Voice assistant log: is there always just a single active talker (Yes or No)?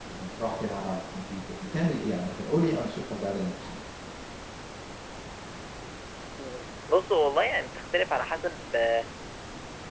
Yes